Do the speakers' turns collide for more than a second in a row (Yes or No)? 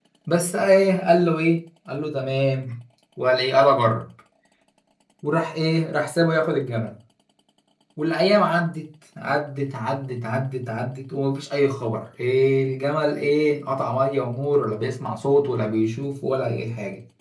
No